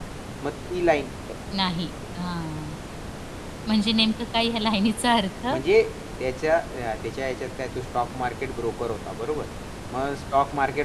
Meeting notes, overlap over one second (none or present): none